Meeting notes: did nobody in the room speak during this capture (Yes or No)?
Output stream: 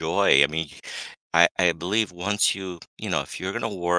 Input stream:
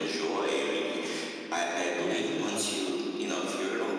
No